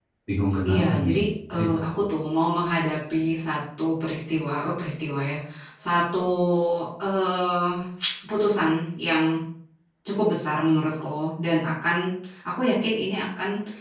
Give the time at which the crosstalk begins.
0.7 s

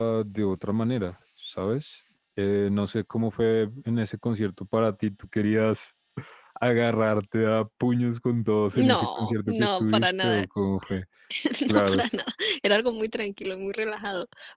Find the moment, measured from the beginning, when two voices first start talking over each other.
8.7 s

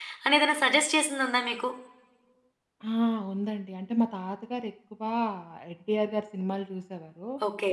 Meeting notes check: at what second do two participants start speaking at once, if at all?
none

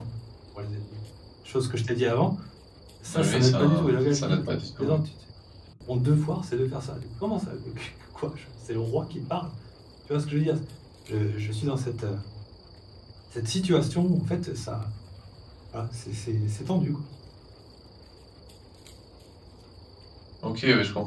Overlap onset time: 3.1 s

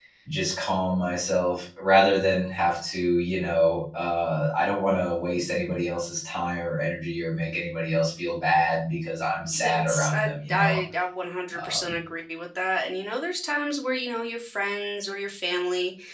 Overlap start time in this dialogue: 9.6 s

